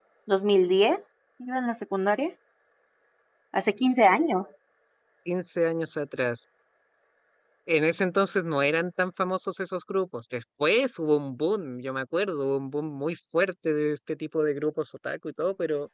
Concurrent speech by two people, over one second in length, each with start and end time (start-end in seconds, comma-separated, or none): none